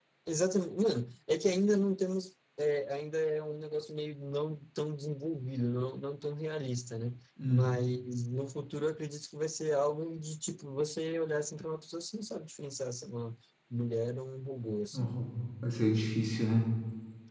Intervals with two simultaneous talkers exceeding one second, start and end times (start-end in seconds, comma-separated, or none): none